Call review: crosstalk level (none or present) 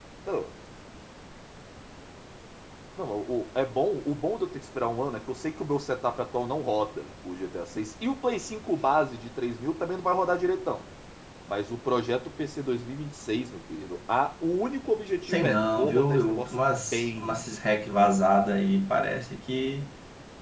present